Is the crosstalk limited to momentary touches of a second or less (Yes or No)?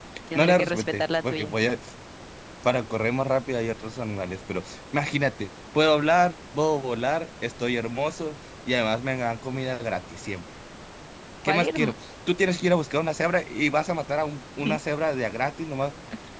No